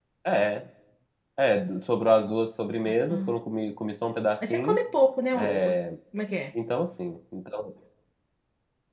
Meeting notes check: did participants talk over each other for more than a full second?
No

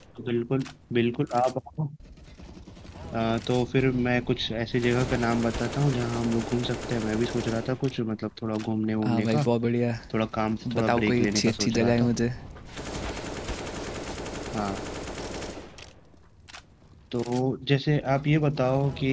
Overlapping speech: Yes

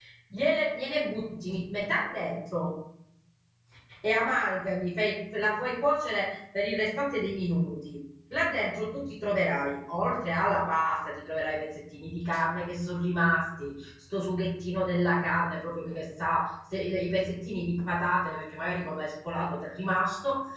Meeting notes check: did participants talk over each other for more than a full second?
No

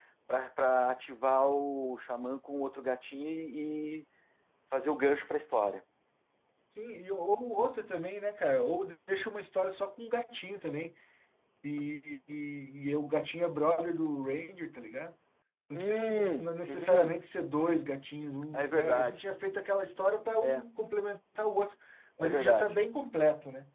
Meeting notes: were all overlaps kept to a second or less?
No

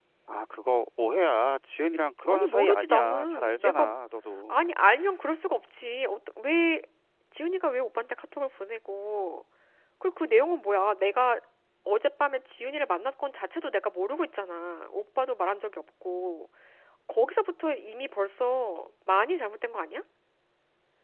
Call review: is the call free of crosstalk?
No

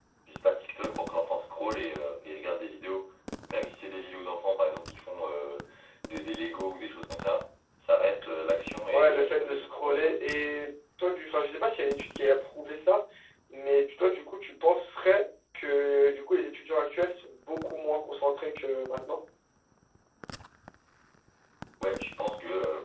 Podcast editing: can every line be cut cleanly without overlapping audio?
No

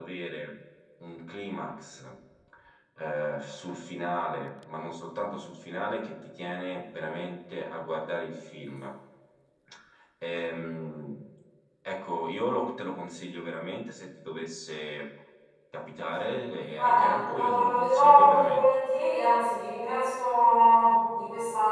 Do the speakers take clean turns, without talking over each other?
No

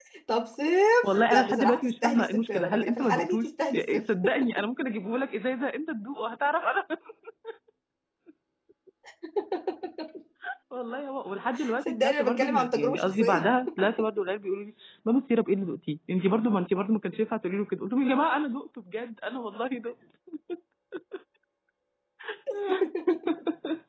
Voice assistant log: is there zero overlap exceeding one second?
No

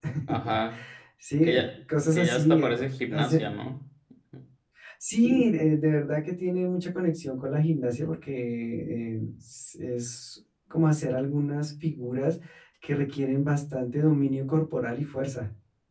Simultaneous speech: Yes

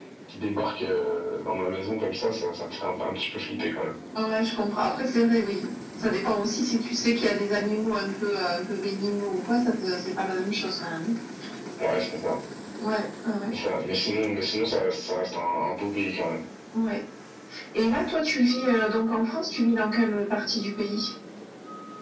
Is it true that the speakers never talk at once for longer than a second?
Yes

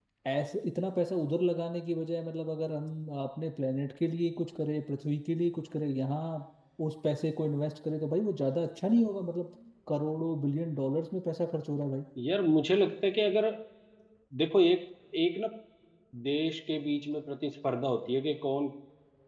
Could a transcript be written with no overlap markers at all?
Yes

